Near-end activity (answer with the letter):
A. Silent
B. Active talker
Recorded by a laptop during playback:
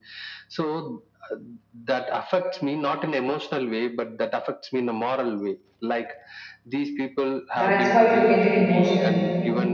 B